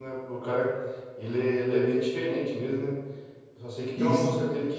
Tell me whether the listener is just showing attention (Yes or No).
Yes